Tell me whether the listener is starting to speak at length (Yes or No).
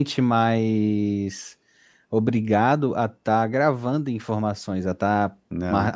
No